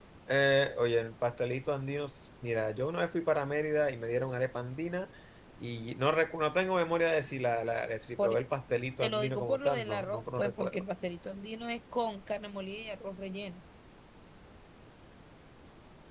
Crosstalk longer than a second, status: present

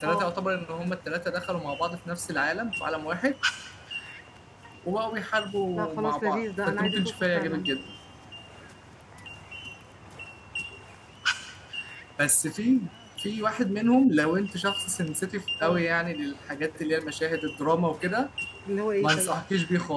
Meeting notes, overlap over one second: present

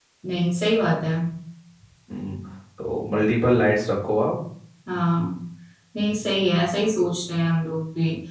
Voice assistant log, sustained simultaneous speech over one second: none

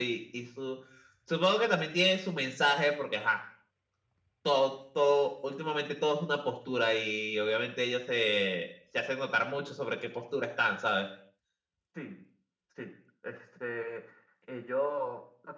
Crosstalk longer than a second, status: none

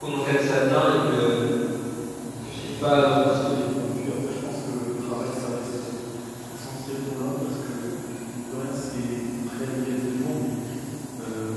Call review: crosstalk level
present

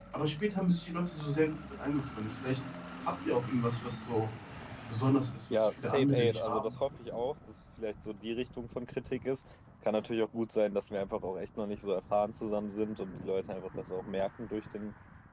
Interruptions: present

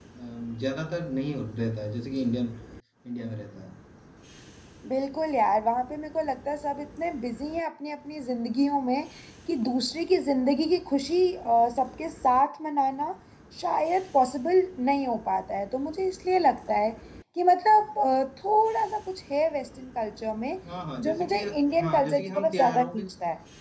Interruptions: present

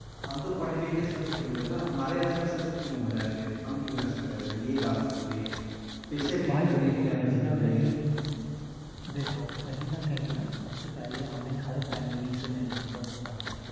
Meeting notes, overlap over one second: present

